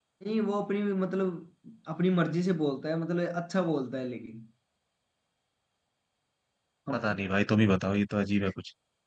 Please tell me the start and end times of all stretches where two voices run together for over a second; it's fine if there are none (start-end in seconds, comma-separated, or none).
none